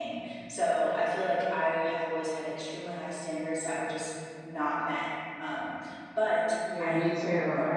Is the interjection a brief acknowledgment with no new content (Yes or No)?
No